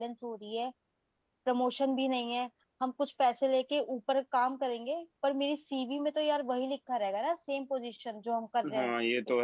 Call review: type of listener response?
taking over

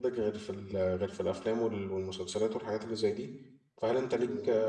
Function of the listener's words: listening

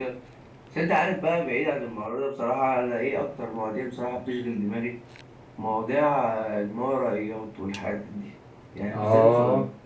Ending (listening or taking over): listening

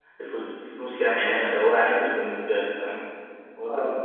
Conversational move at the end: taking over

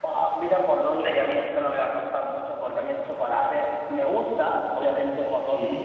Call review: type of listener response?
listening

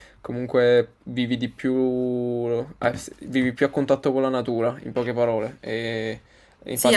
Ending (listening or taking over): taking over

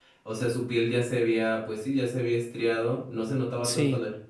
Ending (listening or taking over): listening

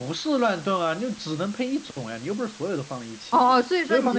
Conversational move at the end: taking over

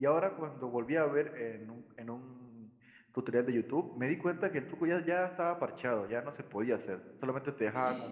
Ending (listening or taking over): listening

